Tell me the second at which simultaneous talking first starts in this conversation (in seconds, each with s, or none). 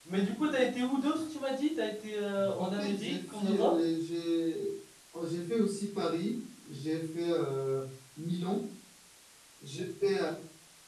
2.4 s